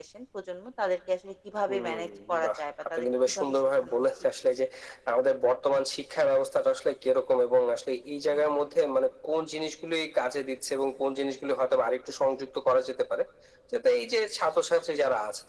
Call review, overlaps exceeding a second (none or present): present